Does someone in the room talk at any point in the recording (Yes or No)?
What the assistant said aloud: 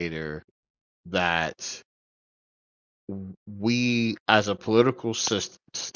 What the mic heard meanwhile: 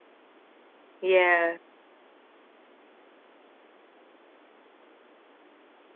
Yes